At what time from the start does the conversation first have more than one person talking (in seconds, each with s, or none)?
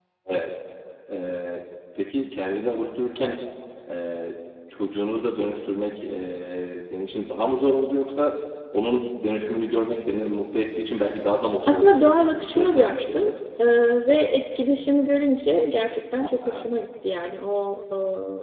11.6 s